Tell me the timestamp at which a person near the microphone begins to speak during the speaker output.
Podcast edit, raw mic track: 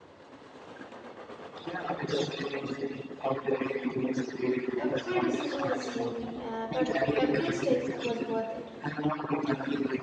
4.8 s

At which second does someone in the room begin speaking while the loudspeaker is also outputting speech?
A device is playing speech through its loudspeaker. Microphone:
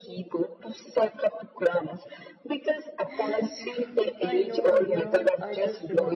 3.1 s

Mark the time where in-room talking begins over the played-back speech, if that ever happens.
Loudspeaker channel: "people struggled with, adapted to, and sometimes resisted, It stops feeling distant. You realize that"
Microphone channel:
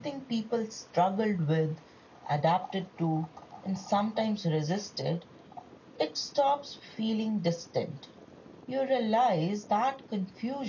none

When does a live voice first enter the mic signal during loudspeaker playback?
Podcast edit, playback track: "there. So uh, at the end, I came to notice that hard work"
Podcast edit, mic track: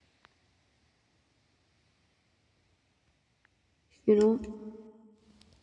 4.0 s

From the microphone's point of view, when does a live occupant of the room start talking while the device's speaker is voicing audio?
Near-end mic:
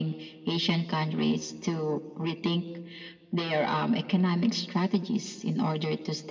none

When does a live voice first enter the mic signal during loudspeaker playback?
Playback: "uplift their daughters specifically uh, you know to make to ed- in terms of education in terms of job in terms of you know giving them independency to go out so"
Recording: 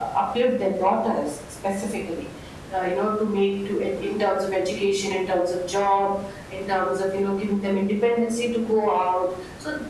none

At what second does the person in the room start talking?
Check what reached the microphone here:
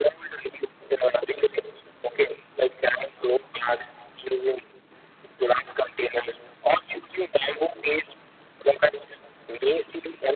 none

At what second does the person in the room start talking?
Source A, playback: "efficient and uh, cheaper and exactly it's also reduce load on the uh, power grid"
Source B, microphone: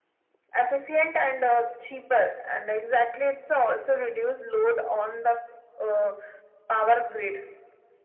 none

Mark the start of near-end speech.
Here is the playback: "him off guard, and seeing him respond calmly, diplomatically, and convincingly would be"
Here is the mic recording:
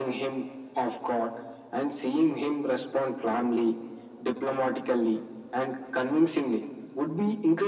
none

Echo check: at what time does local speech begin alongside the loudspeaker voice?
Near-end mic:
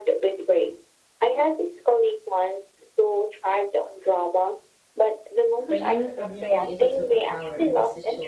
5.7 s

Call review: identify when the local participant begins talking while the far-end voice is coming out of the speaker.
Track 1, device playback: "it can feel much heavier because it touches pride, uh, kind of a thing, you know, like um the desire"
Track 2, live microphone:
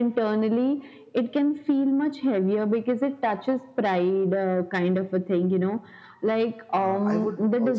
6.8 s

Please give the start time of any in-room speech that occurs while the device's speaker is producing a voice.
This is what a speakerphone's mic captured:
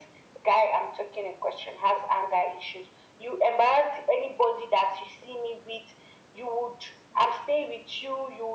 none

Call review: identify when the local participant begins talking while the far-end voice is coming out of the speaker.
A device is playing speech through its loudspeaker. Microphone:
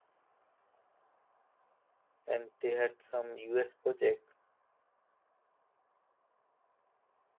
2.2 s

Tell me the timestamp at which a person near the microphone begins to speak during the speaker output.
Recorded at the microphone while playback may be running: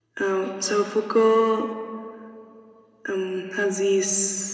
none

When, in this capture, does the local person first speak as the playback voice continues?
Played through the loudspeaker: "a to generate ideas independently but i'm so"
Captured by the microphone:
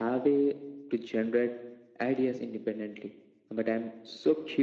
none

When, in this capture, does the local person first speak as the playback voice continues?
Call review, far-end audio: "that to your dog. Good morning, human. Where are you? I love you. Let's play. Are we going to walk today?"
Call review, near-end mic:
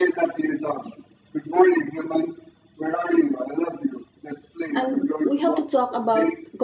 4.7 s

